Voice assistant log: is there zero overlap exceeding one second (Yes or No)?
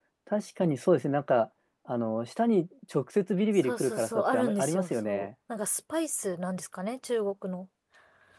No